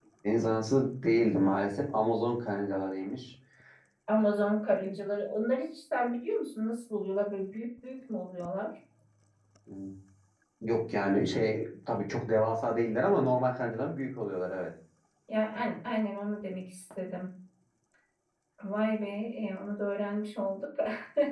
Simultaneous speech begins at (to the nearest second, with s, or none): none